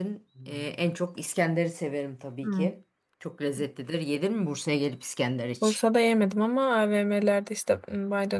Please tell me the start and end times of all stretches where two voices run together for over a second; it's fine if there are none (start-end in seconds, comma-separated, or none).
none